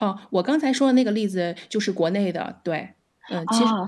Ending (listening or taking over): taking over